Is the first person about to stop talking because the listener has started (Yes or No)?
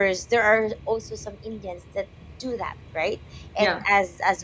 No